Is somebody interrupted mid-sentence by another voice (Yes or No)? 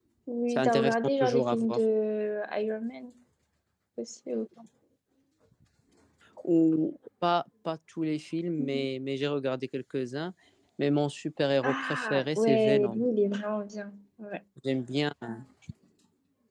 Yes